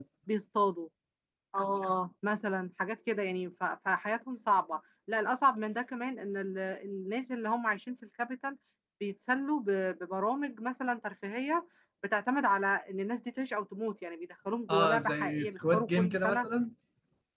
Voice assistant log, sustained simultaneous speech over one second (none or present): present